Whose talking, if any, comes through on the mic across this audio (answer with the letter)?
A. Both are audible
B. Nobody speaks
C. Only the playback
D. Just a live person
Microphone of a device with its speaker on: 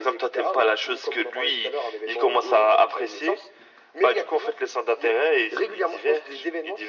C